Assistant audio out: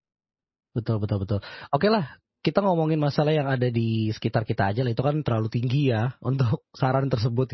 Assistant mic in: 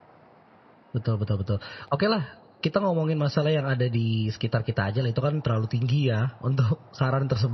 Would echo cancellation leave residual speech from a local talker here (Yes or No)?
No